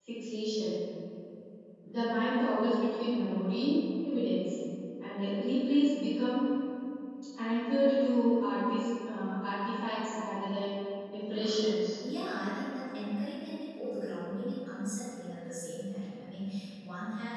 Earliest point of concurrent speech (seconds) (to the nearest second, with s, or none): none